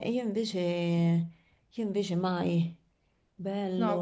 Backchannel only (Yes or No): No